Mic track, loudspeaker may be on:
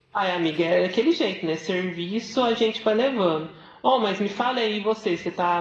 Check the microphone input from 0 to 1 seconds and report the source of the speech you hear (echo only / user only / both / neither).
echo only